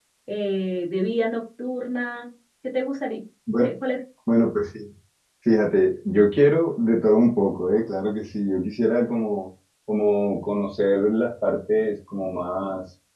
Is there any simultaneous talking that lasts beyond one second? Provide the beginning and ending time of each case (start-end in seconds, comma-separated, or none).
none